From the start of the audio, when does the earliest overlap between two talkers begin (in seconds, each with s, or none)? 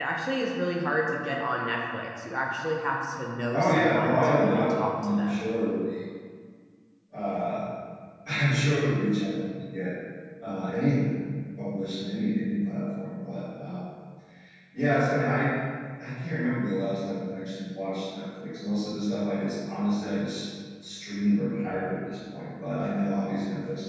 3.5 s